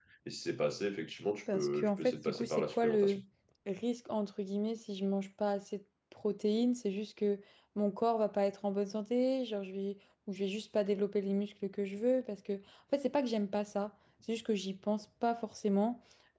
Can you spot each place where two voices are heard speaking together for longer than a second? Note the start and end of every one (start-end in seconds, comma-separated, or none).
1.5-3.2